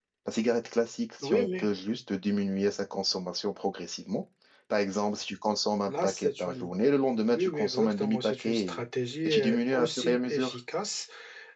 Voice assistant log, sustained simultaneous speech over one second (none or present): present